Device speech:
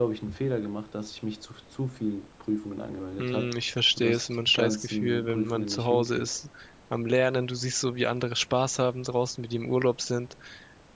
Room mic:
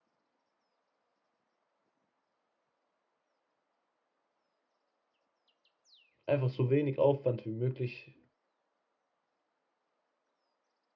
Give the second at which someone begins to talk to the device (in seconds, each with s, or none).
6.2 s